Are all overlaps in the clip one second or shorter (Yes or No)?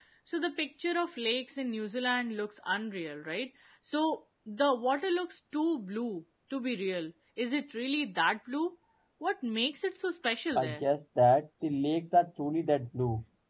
Yes